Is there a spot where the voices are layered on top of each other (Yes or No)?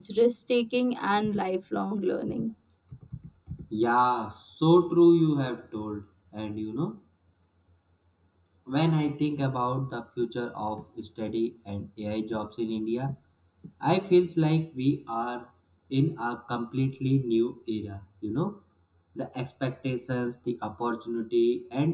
No